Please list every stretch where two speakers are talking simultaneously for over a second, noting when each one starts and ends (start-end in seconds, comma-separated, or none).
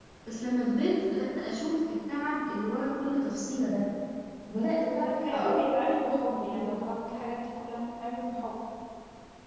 4.8-6.8